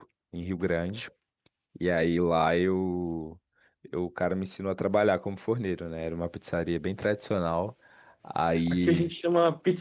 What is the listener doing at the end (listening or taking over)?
taking over